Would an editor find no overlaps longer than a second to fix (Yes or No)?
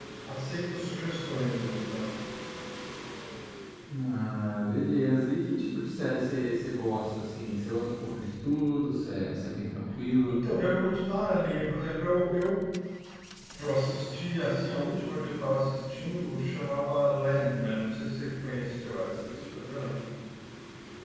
Yes